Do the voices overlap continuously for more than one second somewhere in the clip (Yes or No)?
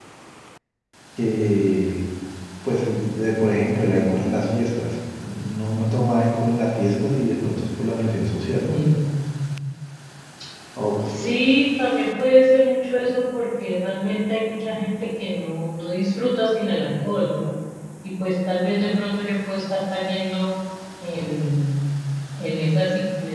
No